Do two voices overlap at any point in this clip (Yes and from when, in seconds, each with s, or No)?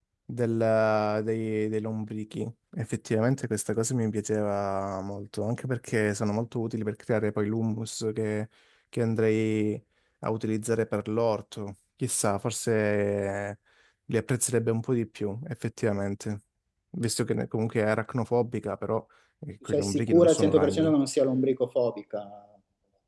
Yes, from 19.7 s